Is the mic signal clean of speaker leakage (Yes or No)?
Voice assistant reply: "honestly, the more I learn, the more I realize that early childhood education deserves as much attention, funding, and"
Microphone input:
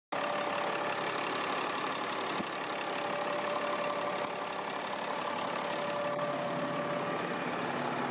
Yes